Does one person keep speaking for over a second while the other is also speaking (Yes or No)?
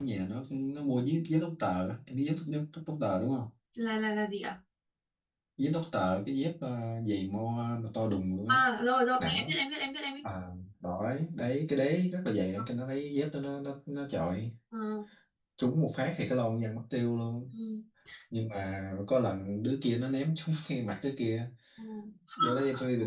No